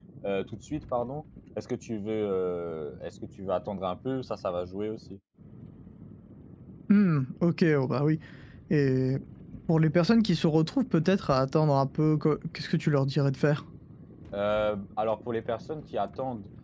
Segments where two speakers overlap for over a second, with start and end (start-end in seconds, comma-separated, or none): none